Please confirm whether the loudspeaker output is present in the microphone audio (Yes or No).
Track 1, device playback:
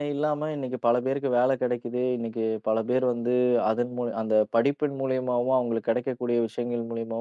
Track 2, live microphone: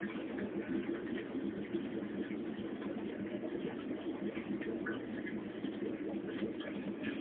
No